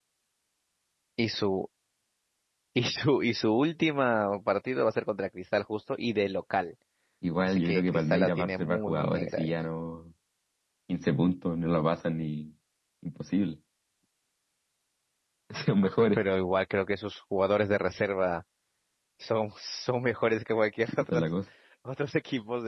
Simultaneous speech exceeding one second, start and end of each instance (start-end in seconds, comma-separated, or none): 7.4-9.4